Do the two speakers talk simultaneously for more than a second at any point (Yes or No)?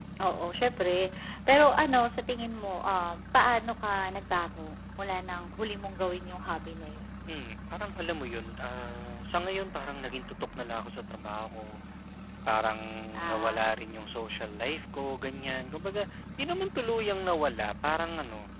No